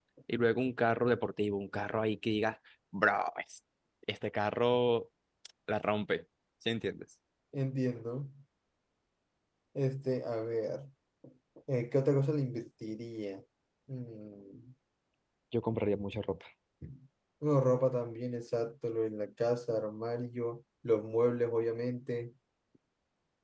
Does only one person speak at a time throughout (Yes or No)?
Yes